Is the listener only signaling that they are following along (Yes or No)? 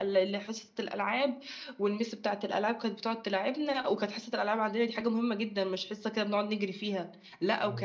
Yes